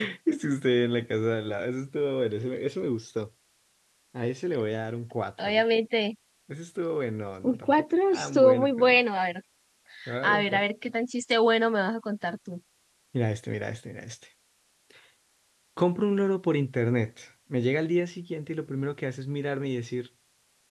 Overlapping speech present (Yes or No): Yes